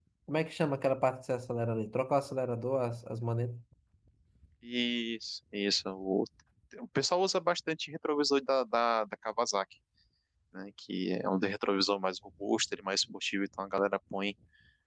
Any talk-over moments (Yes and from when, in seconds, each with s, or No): No